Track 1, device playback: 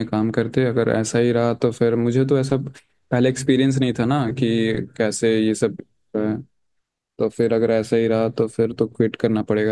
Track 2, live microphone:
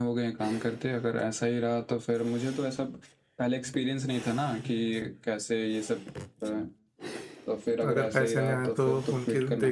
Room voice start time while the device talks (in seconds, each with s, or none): 7.9 s